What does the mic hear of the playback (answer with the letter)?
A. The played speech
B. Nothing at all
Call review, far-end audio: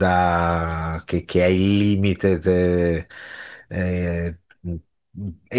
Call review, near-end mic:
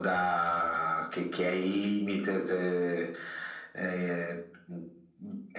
A